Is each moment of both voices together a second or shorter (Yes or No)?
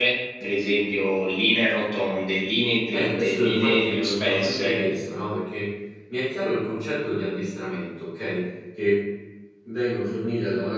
No